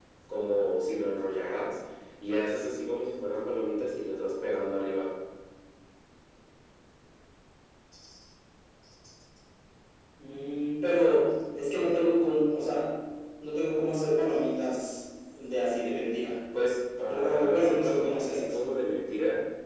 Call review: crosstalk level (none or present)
present